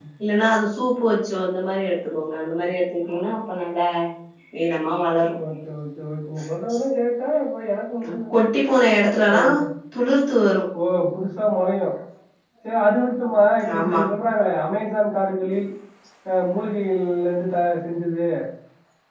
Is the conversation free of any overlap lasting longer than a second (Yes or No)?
Yes